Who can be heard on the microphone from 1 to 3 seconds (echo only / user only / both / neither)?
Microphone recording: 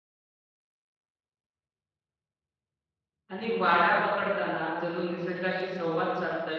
neither